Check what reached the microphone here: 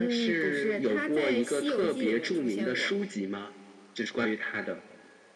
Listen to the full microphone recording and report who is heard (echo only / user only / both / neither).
echo only